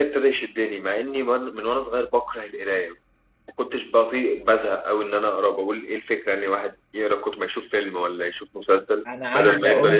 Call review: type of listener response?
taking over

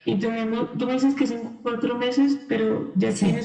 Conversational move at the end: listening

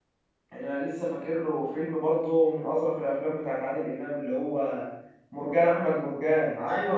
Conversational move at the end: taking over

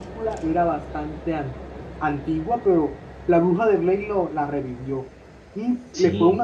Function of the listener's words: listening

